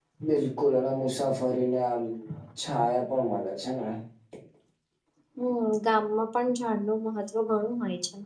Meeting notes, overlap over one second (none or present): none